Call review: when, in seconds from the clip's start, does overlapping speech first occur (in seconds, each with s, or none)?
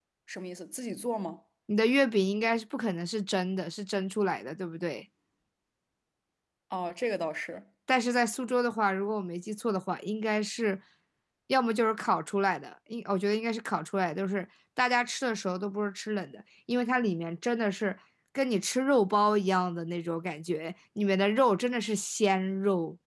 none